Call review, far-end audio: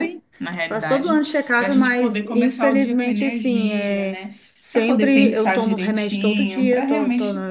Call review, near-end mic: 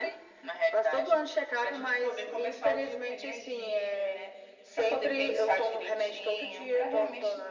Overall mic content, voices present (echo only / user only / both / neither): echo only